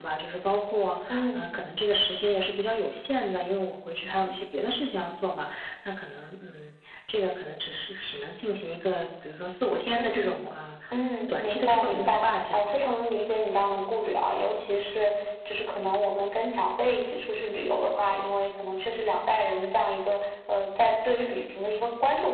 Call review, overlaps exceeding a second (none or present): present